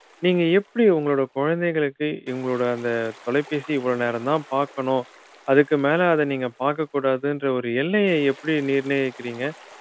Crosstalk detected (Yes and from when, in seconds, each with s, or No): No